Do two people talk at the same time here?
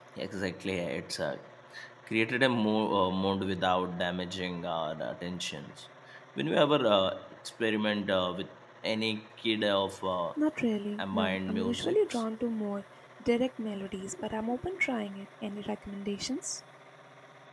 Yes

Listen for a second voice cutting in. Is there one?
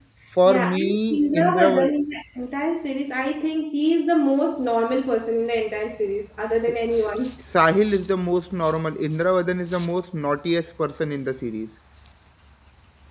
Yes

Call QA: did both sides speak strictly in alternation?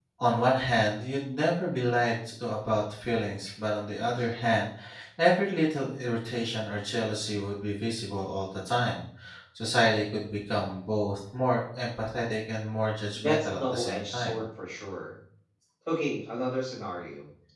No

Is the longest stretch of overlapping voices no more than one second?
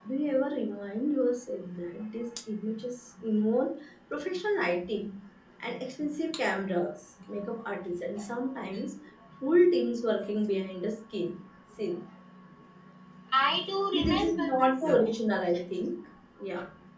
No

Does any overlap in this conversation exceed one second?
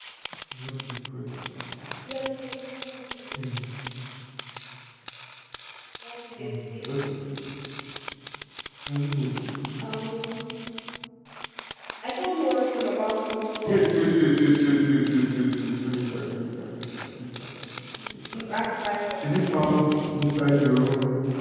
No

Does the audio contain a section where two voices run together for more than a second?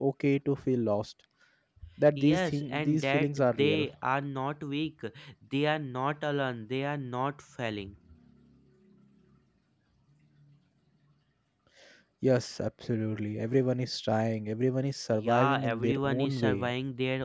Yes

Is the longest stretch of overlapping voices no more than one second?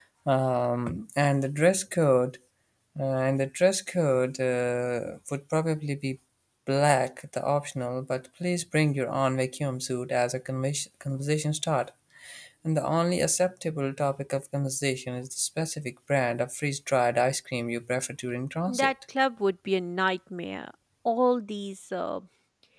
Yes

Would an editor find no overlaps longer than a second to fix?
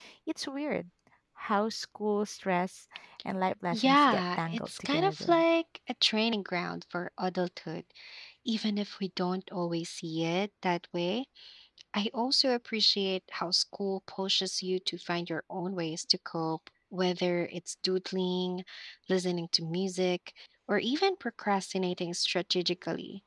No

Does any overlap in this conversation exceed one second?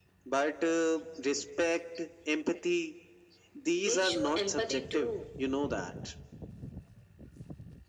Yes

